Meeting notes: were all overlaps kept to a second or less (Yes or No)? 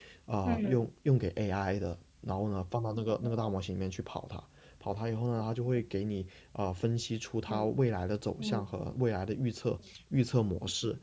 Yes